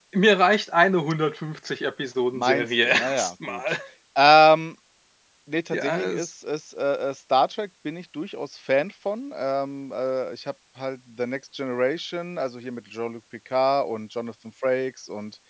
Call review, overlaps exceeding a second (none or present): present